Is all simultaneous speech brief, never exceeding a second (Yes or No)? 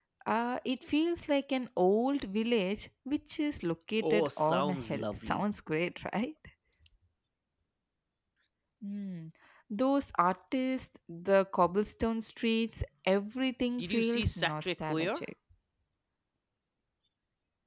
No